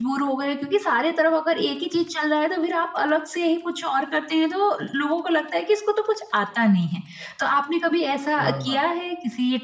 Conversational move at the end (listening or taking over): listening